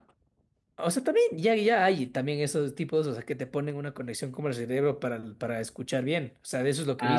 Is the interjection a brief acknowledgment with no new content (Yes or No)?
No